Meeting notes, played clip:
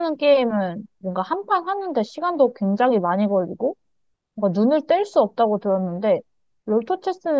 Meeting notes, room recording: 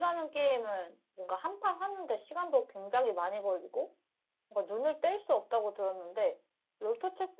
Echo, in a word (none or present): present